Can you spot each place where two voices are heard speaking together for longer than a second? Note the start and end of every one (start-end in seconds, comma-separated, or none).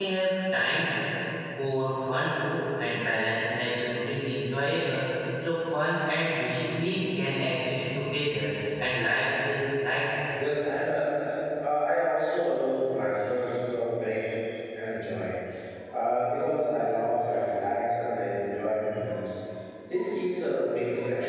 none